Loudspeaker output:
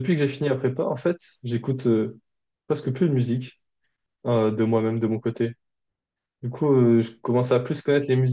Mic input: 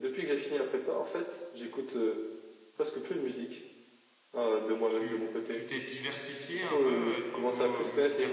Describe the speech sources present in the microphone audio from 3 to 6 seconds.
both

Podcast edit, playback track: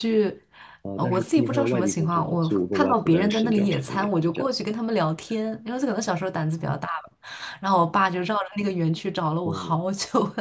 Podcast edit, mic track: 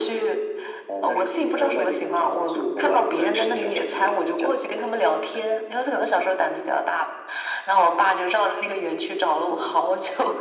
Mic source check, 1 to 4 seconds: echo only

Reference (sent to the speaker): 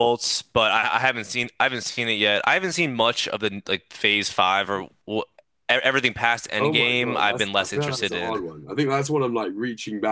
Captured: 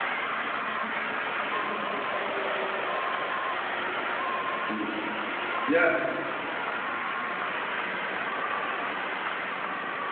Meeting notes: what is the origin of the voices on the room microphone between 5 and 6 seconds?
user only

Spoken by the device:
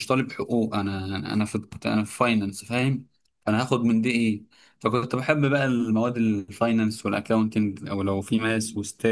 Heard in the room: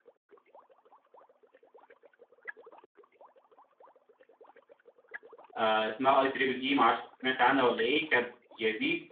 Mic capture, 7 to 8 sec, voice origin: user only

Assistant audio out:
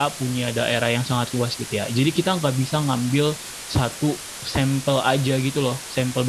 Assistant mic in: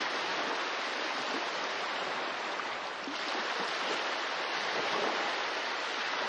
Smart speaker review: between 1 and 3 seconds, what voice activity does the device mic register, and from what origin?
neither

